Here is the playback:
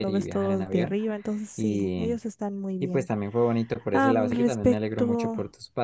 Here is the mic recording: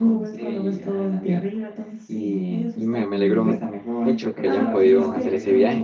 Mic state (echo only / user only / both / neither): both